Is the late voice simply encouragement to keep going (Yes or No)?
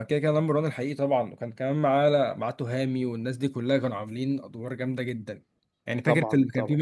Yes